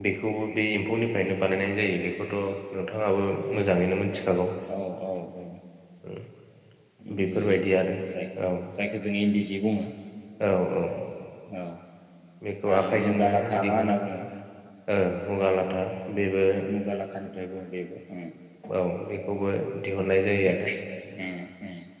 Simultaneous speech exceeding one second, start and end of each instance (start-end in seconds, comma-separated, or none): 12.7-14.0